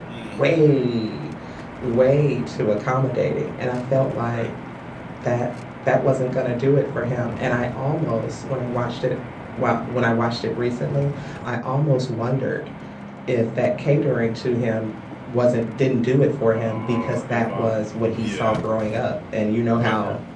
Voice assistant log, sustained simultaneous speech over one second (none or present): present